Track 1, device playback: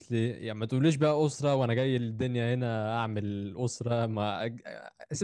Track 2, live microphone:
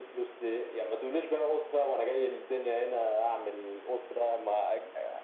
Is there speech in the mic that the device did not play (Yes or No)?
No